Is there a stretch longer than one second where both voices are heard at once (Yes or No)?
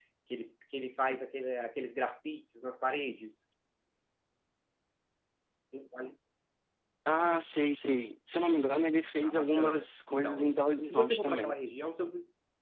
Yes